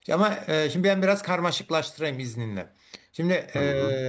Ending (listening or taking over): listening